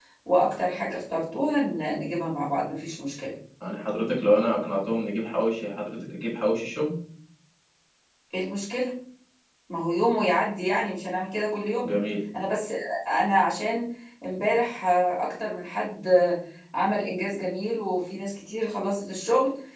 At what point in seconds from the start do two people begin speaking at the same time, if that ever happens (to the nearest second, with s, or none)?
none